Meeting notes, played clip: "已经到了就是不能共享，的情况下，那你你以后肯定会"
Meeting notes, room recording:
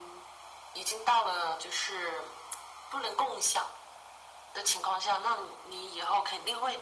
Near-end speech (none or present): none